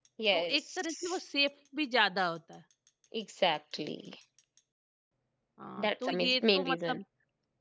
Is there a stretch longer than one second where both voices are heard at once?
Yes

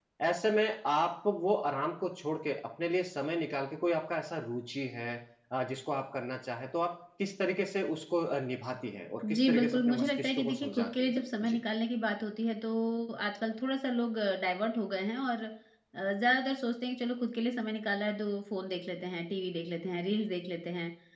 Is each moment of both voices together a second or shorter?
No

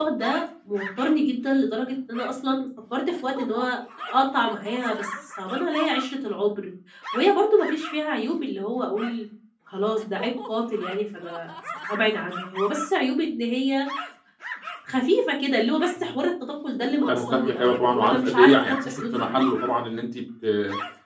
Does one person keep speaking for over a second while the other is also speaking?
Yes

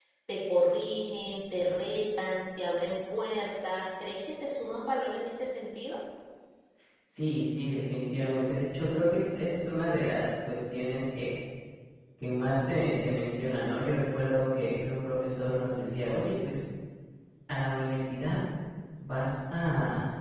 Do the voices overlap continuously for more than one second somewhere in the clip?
No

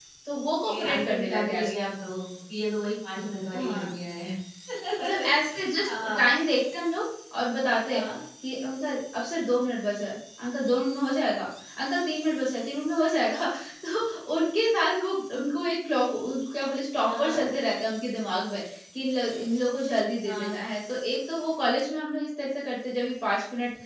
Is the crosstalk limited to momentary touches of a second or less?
No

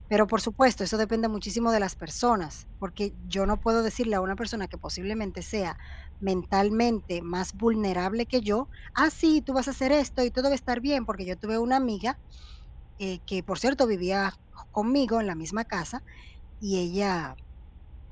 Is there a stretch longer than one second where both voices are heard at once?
No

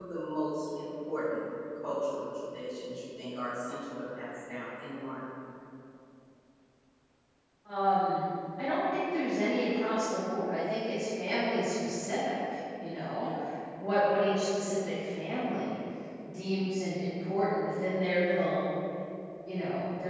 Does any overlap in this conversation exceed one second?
No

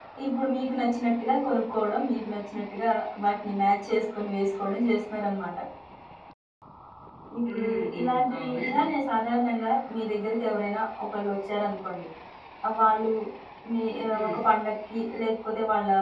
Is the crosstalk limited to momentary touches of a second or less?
No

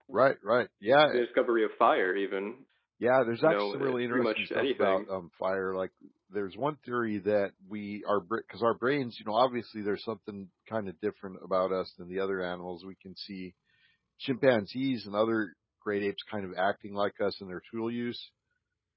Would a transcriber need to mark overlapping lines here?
Yes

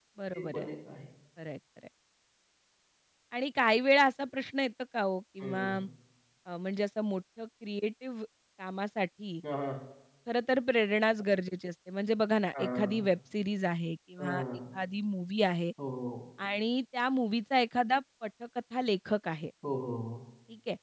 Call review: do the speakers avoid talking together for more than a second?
Yes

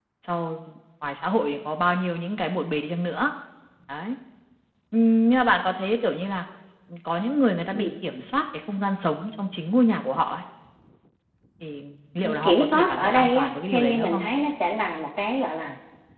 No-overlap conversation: No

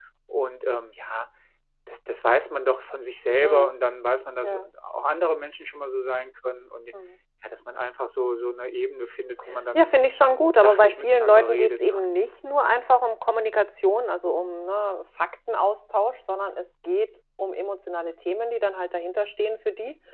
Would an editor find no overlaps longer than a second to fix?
No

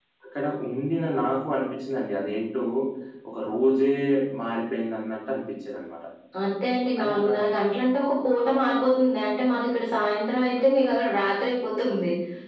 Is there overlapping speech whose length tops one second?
No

